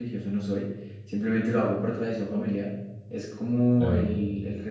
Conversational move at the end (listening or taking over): listening